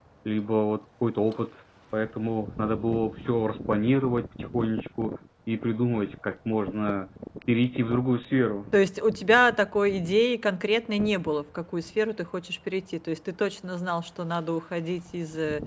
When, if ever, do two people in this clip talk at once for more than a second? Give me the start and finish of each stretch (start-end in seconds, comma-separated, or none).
none